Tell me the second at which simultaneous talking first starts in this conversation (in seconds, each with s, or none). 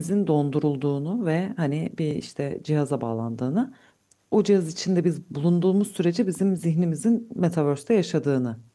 none